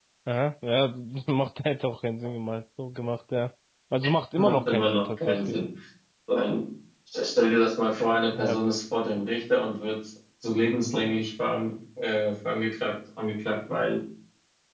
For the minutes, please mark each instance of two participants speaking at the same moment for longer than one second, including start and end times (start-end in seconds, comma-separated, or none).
4.4-5.6